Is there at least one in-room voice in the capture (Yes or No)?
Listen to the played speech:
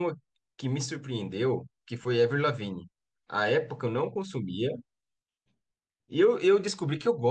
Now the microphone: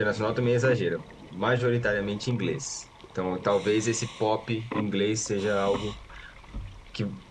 Yes